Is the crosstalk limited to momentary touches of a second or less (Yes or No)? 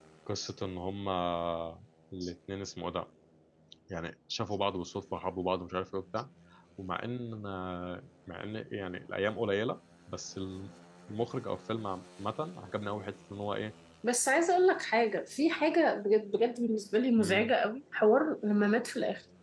Yes